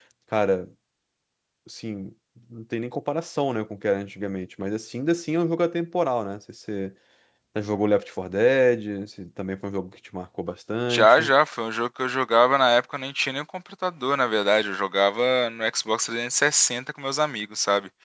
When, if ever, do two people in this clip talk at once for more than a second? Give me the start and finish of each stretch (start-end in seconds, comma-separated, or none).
none